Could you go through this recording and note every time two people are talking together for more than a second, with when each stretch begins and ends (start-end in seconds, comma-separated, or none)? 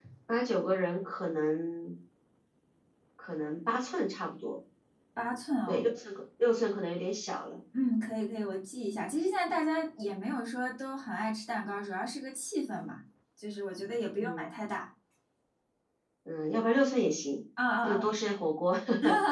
none